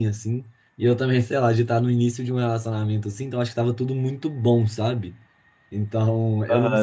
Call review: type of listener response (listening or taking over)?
taking over